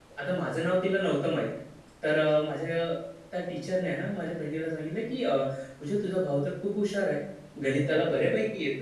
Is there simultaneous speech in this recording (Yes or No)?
No